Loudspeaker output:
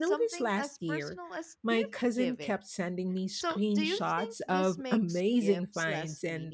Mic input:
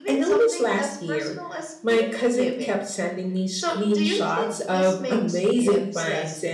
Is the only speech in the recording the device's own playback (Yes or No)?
Yes